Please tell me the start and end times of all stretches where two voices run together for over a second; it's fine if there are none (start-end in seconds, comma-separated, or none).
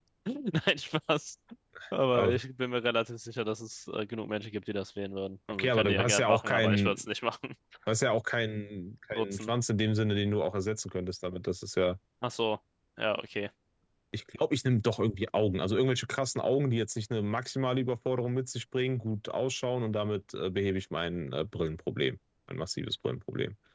5.5-7.0